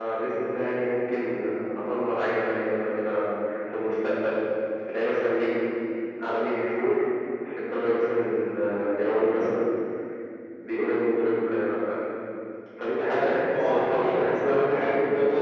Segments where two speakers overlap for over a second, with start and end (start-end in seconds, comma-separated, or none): 13.2-14.7